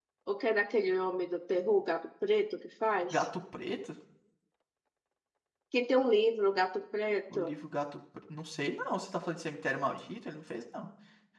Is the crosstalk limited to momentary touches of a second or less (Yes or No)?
Yes